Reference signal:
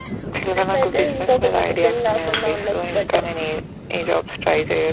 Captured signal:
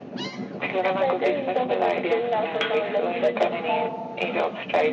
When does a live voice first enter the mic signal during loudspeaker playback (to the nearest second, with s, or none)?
3 s